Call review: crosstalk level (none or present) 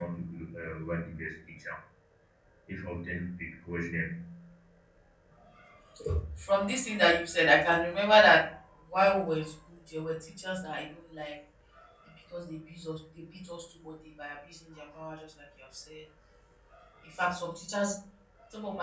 none